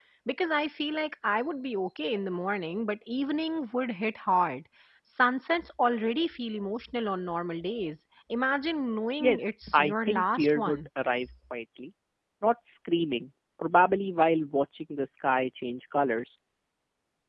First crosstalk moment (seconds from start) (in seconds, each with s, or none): 9.2 s